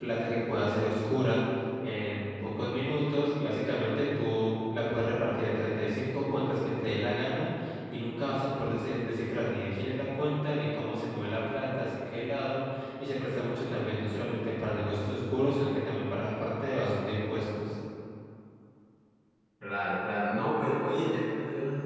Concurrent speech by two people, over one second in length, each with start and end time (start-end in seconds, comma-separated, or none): none